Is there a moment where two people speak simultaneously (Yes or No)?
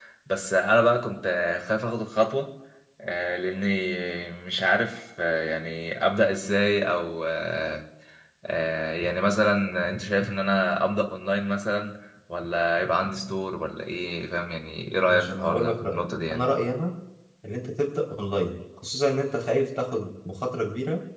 Yes